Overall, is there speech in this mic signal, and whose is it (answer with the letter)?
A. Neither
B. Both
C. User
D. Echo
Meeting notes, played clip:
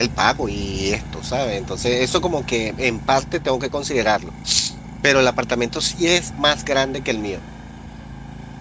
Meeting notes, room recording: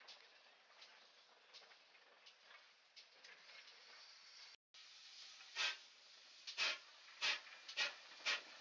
A